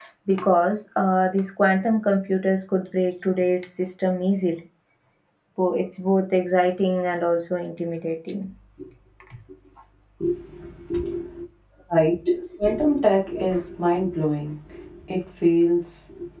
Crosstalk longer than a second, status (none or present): none